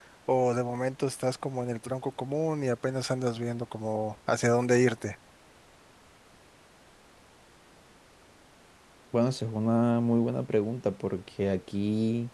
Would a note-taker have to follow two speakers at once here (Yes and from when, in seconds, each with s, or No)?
No